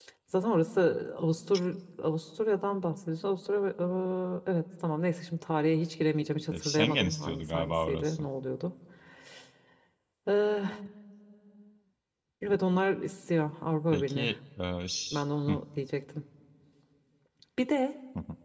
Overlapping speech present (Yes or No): Yes